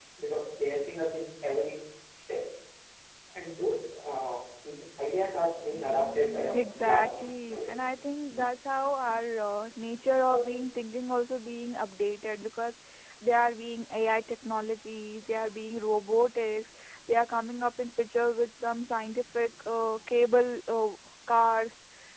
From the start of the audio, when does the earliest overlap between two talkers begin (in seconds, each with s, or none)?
6.5 s